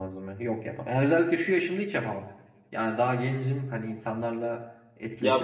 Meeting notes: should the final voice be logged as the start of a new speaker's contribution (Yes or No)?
Yes